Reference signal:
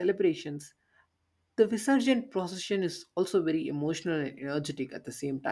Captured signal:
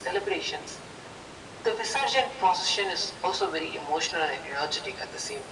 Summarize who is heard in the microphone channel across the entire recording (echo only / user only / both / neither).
echo only